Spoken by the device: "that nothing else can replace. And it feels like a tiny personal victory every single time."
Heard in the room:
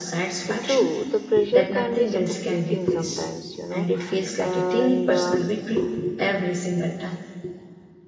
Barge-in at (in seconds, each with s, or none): 0.5 s